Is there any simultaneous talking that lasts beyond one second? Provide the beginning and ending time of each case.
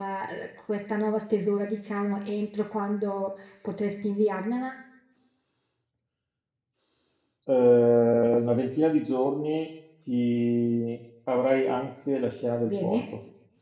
none

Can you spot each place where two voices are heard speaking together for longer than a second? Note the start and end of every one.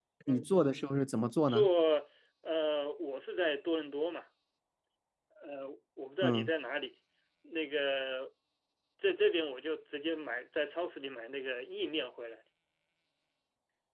none

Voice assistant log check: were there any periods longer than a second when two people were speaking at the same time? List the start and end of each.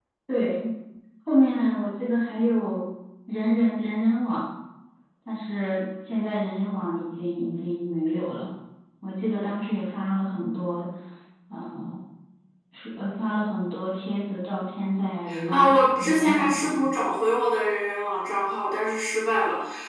15.5-16.9

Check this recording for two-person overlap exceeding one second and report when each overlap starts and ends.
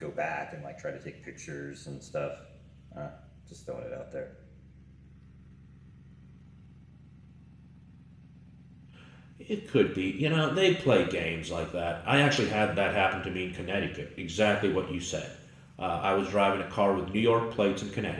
none

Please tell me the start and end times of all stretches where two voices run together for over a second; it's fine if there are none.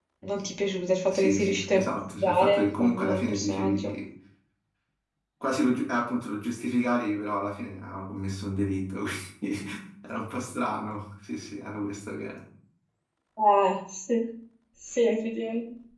1.1-3.9

